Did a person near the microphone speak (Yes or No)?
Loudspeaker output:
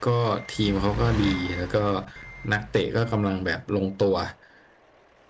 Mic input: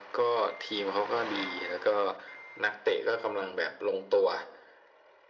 No